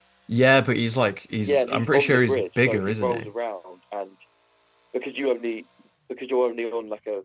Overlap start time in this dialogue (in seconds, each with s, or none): 1.4 s